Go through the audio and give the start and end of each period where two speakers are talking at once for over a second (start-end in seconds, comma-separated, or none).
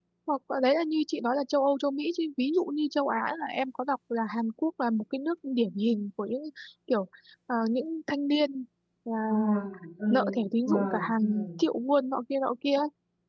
10.1-11.5